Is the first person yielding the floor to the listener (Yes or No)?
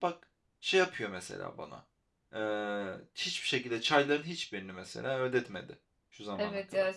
Yes